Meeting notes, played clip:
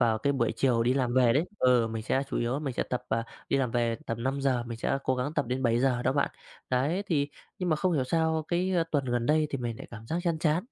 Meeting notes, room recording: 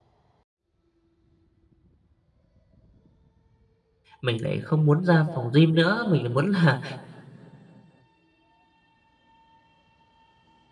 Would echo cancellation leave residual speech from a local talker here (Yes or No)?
Yes